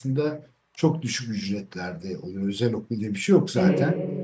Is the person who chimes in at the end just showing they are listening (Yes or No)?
Yes